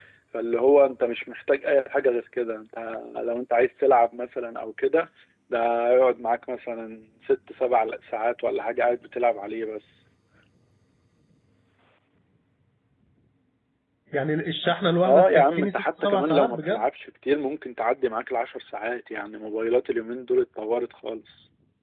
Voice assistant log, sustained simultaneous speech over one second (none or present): present